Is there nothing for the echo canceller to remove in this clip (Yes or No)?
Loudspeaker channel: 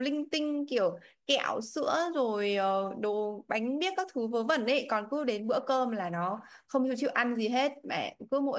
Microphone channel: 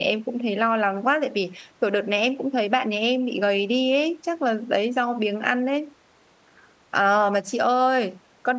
Yes